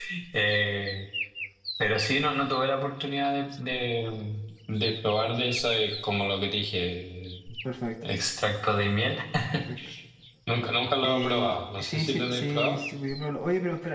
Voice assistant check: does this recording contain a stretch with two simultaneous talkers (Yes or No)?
Yes